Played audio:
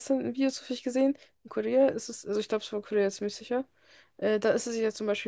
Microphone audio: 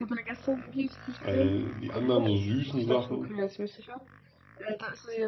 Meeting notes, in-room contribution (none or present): present